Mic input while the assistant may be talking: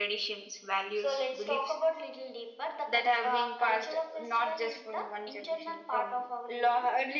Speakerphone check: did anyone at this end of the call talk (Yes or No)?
No